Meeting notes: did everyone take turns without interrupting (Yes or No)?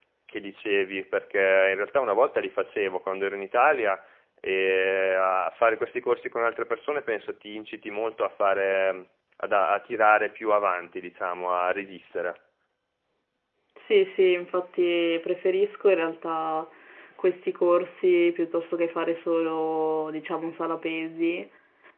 Yes